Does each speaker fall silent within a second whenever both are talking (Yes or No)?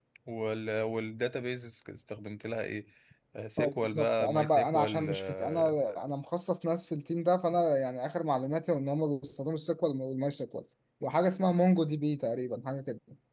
No